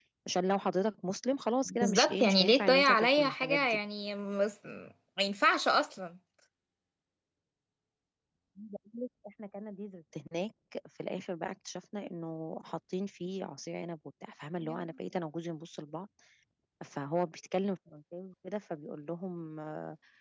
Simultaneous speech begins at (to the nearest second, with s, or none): 2 s